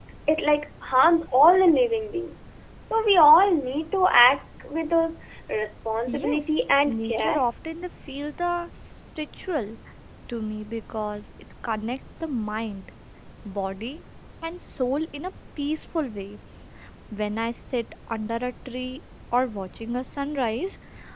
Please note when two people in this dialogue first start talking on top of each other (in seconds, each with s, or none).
6.1 s